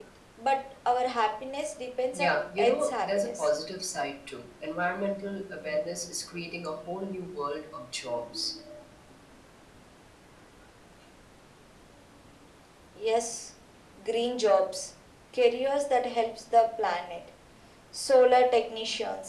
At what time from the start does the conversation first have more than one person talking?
2.1 s

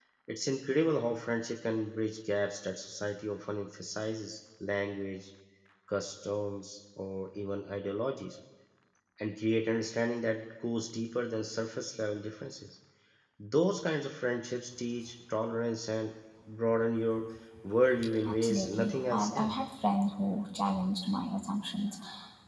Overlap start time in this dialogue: 18.2 s

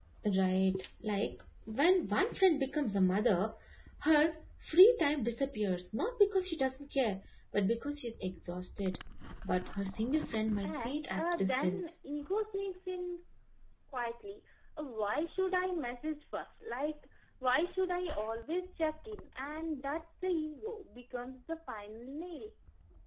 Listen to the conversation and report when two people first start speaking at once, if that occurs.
10.6 s

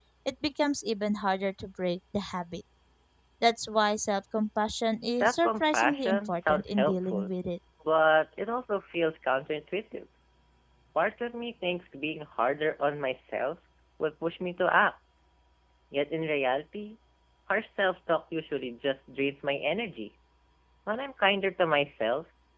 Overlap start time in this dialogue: 5.2 s

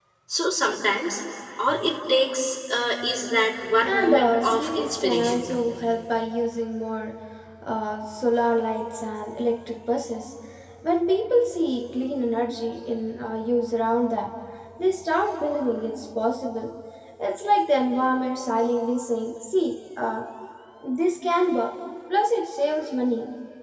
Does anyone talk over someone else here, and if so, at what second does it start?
3.8 s

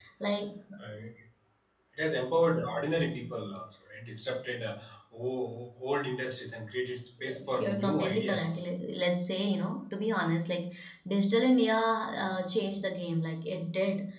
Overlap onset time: 7.2 s

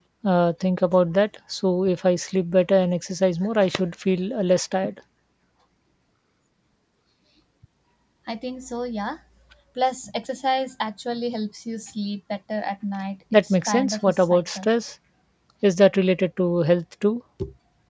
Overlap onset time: 13.3 s

